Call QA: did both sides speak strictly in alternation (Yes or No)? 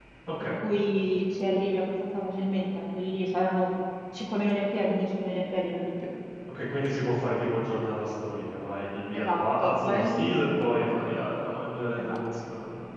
No